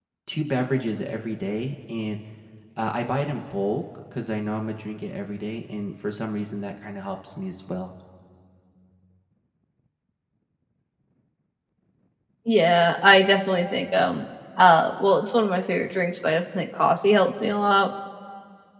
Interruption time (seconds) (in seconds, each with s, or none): none